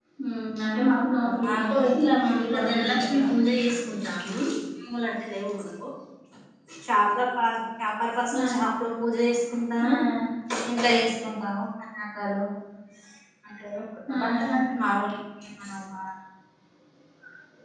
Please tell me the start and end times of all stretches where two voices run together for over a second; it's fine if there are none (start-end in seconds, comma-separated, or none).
1.4-3.3